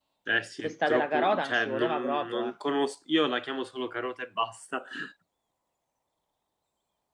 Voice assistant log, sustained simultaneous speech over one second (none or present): present